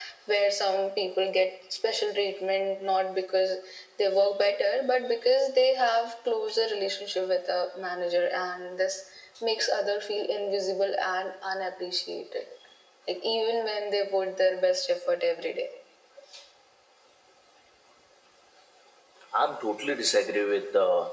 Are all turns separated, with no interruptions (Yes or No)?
Yes